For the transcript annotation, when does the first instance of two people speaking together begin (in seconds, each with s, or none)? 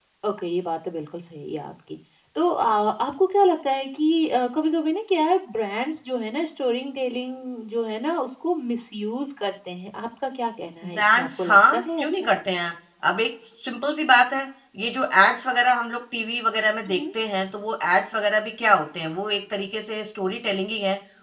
10.8 s